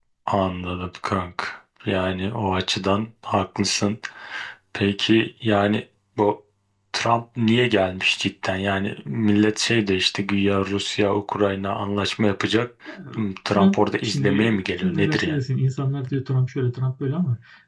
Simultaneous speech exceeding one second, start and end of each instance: 13.5-15.4

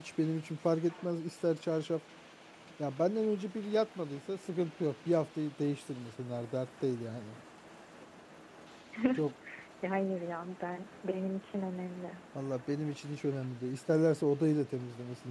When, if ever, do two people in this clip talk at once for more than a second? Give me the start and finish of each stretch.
none

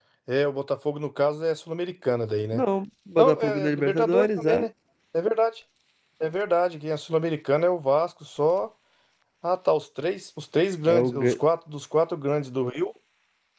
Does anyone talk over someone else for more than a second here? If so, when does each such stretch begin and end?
3.2-4.7

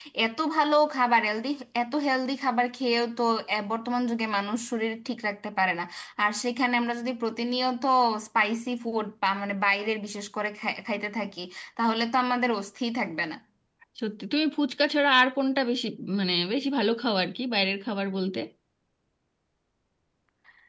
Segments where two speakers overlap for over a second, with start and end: none

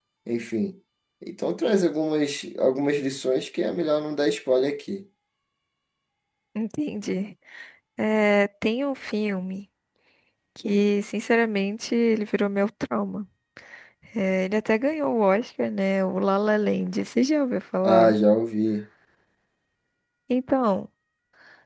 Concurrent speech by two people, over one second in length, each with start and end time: none

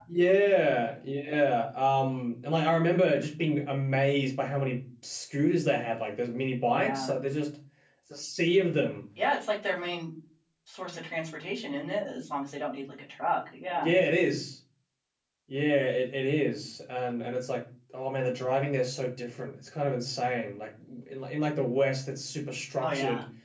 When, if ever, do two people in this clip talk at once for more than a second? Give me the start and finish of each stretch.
none

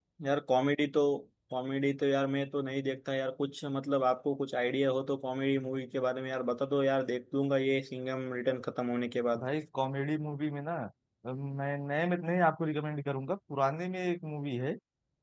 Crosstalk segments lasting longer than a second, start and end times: none

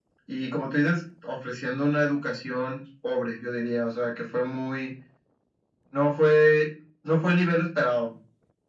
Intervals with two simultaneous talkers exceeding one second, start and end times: none

